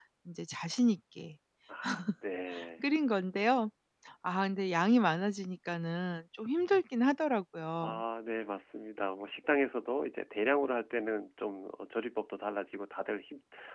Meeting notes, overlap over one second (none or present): none